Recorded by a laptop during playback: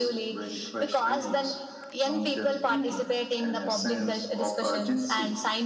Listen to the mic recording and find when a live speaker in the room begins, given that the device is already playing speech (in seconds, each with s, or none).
none